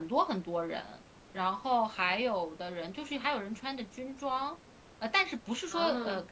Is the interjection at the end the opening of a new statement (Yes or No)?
No